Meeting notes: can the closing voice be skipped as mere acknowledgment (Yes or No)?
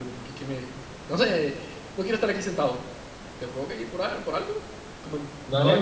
No